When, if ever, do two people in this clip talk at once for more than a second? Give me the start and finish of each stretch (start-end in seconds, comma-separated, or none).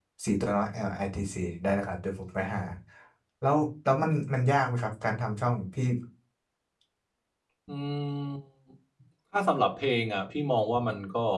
none